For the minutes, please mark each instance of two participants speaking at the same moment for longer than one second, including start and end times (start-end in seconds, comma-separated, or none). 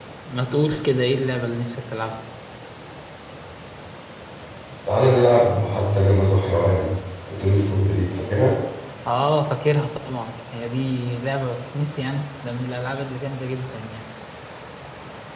none